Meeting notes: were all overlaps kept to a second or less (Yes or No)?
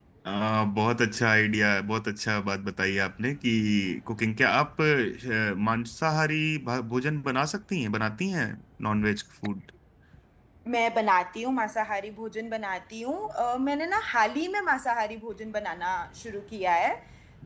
Yes